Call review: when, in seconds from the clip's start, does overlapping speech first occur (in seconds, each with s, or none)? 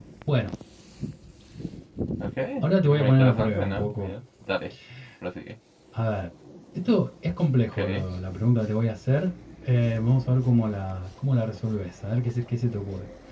2.9 s